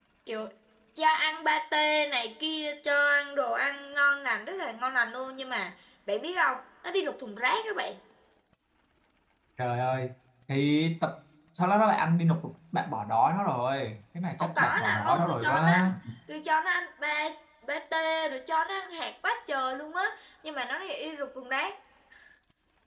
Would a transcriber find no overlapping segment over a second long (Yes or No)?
No